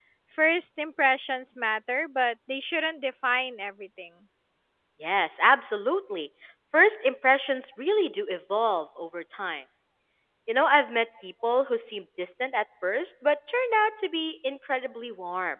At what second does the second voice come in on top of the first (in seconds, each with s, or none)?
none